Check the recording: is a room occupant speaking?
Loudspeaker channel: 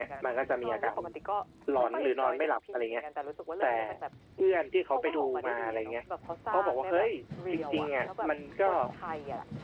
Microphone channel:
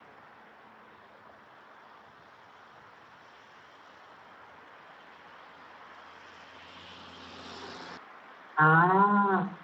Yes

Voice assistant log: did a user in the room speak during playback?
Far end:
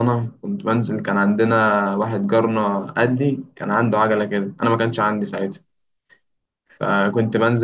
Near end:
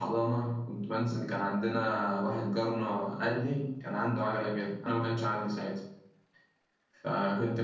No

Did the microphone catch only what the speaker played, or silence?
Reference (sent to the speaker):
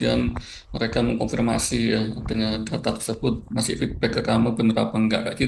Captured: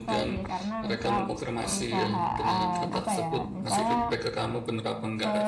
No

